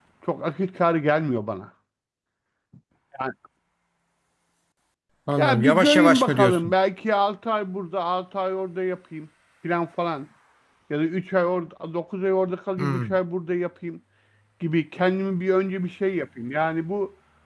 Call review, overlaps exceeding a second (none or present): present